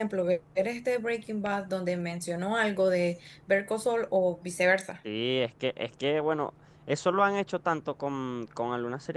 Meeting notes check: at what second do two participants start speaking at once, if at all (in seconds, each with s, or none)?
none